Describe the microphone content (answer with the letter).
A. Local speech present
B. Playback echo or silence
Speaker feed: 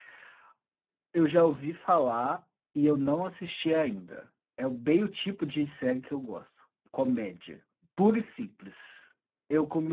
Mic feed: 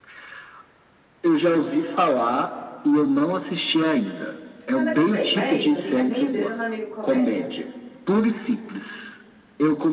A